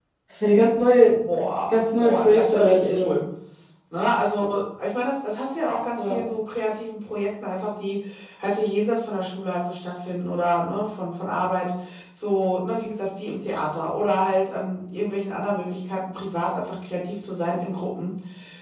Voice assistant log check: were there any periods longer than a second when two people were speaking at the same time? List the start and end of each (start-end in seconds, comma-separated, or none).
1.7-3.2